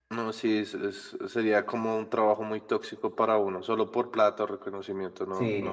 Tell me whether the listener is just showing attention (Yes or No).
No